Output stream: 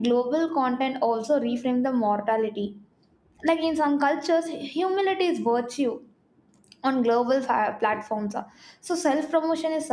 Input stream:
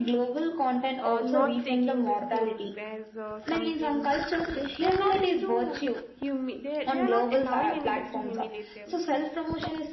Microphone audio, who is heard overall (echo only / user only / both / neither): both